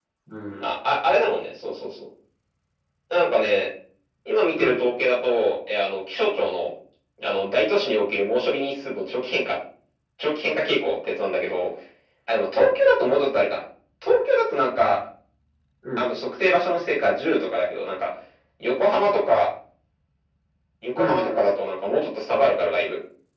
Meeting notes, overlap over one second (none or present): none